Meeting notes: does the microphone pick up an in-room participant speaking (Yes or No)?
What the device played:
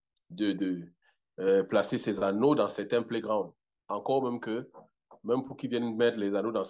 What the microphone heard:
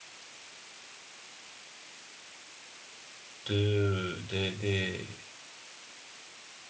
Yes